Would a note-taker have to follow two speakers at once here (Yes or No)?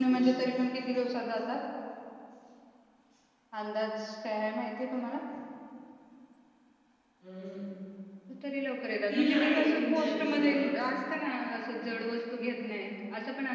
Yes